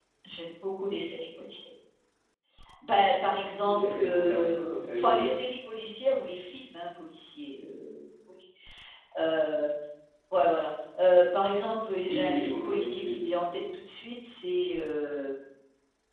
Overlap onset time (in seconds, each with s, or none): 3.7 s